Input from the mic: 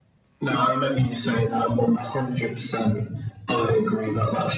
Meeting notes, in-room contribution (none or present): none